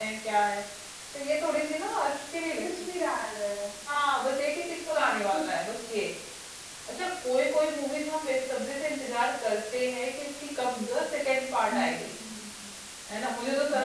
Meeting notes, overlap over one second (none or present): none